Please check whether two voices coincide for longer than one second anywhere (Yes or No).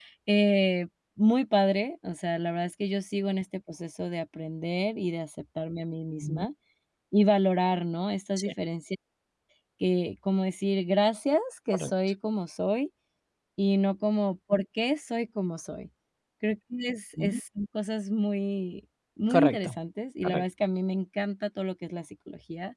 No